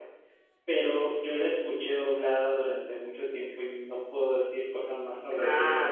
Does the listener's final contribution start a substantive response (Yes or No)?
Yes